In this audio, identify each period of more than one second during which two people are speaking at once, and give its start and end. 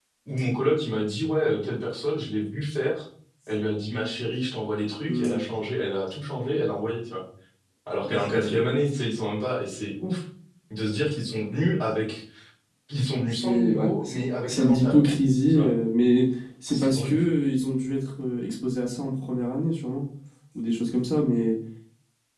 13.3-15.0

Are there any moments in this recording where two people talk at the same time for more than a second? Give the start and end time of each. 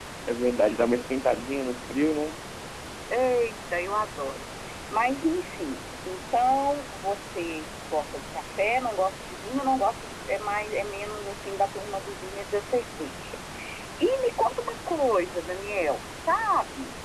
none

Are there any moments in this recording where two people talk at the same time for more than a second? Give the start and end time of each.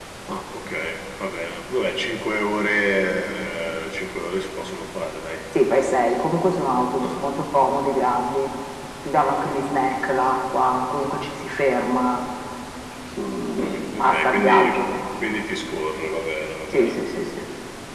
13.6-14.8

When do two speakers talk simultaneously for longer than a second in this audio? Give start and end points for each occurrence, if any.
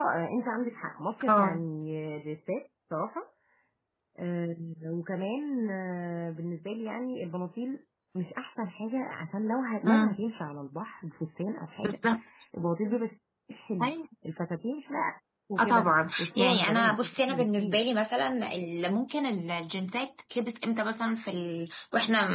15.6-17.8

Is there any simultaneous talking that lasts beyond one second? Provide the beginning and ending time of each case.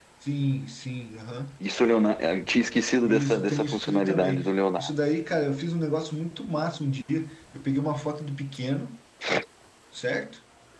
3.0-4.4

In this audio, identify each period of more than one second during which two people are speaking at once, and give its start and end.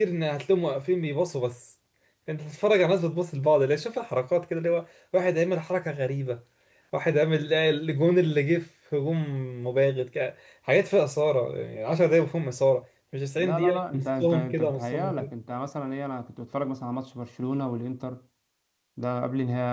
13.4-15.3

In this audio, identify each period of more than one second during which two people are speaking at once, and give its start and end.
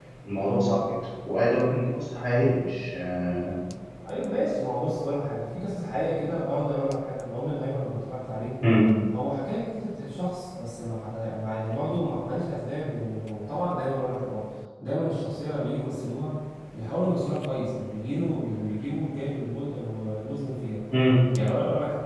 none

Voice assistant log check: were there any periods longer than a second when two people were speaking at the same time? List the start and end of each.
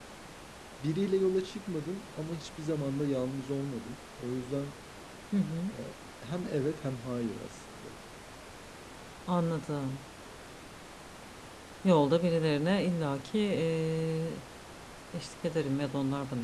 none

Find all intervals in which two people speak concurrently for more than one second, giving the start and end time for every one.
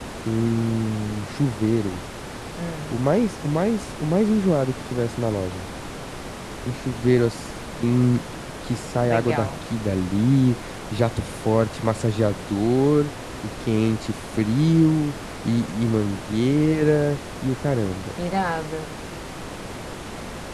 none

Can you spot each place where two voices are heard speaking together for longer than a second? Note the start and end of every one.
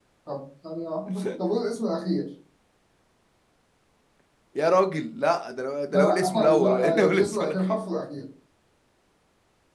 5.9-7.8

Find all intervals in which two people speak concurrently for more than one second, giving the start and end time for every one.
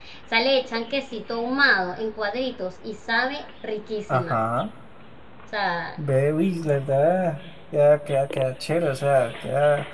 none

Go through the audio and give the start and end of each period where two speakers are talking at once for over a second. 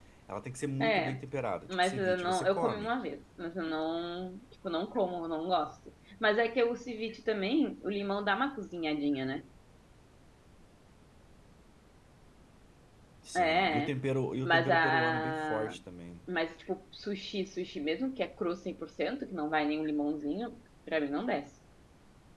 1.7-2.9, 14.4-15.8

